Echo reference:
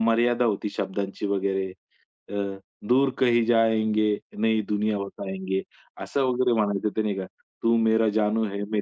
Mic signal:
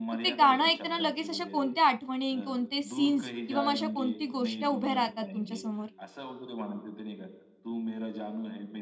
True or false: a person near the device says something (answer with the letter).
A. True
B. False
A